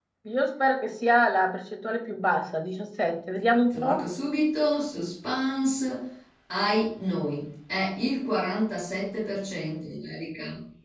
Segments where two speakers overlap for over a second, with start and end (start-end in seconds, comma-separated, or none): none